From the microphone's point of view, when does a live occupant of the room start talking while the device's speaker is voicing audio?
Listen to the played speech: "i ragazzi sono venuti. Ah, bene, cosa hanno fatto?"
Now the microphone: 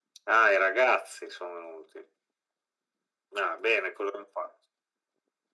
none

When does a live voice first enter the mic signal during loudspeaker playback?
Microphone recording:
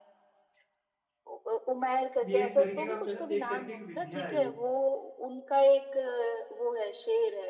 2.3 s

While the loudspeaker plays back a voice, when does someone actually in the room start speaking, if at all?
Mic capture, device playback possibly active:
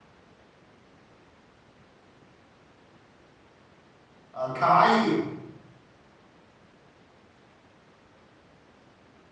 4.3 s

